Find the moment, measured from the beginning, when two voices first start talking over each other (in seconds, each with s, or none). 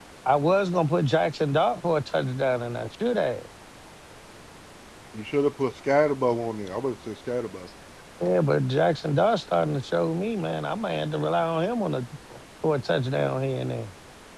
none